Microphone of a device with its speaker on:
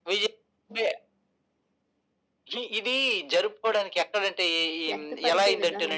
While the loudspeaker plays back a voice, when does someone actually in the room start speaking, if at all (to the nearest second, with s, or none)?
5 s